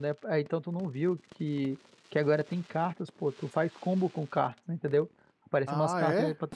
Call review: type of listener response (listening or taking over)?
listening